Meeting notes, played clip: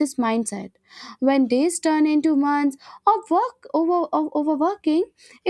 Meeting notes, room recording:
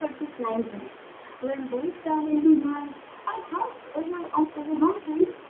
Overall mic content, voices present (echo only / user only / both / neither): echo only